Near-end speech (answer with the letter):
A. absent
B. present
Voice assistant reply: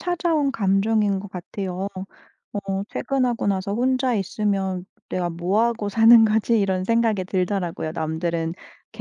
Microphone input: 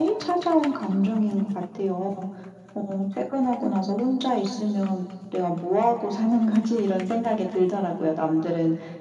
A